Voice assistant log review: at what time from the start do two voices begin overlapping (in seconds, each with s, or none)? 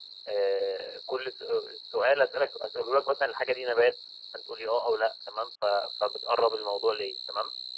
none